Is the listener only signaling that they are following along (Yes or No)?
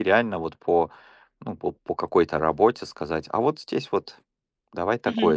No